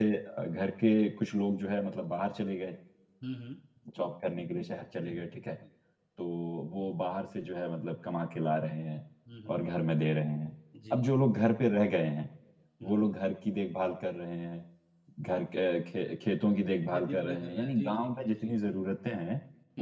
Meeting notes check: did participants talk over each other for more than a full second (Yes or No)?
Yes